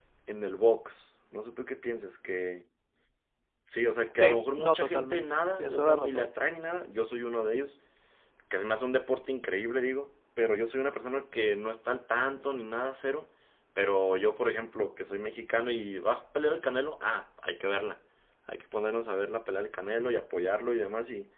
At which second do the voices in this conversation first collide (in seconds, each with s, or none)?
4.2 s